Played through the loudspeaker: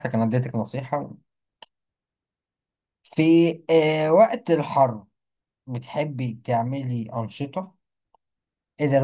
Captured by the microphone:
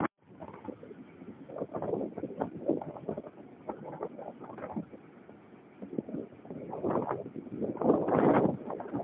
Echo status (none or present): none